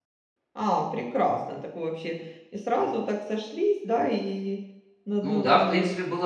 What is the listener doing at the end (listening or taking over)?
taking over